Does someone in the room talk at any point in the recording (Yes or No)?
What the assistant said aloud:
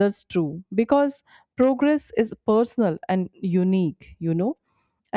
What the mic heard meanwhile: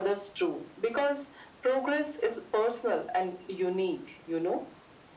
No